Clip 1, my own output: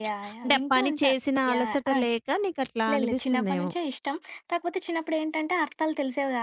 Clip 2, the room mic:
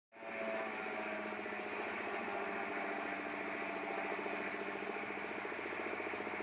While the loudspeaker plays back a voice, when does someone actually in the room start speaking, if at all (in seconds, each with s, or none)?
none